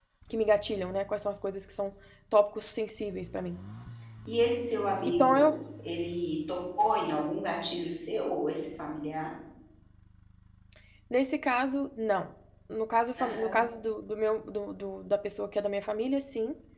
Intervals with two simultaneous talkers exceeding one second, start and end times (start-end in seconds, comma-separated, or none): none